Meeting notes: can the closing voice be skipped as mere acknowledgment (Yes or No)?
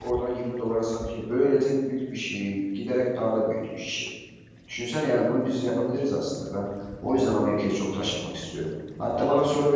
Yes